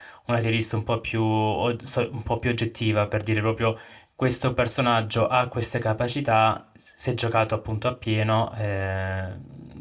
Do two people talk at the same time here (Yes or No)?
No